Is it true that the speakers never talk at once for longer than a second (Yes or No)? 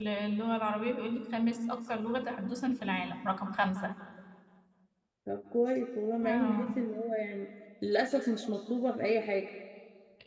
Yes